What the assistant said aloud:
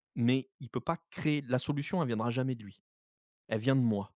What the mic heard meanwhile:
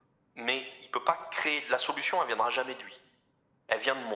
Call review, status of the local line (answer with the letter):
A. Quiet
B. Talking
A